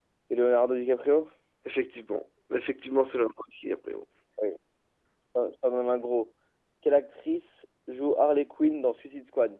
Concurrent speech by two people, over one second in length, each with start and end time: none

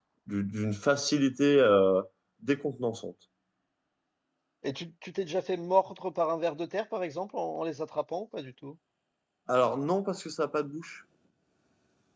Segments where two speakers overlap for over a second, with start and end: none

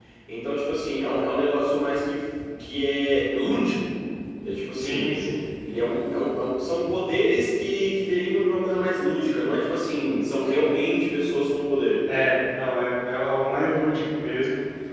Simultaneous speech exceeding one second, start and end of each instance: none

